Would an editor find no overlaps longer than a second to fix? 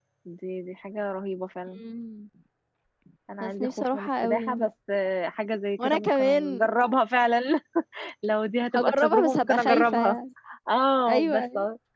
No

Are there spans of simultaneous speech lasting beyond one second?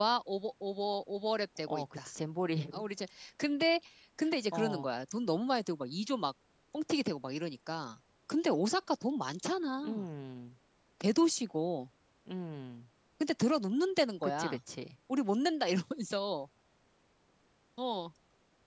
No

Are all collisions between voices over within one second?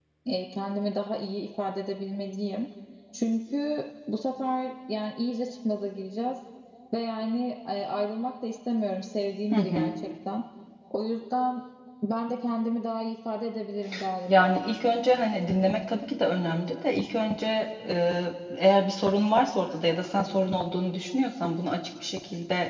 Yes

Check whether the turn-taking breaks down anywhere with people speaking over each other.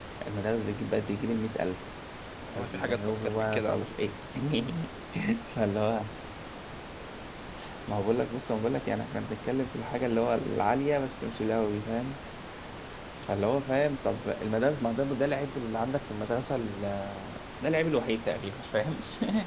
Yes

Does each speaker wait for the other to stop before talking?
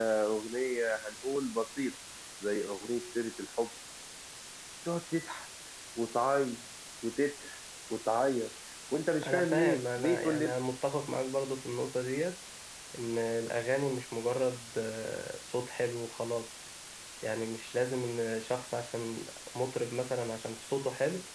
No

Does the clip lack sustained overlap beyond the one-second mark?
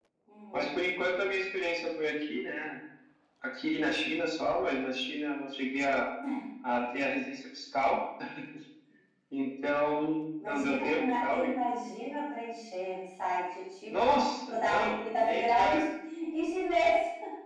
No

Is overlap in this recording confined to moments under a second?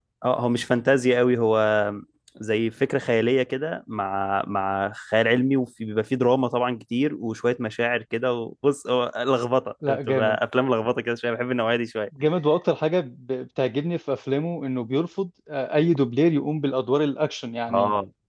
Yes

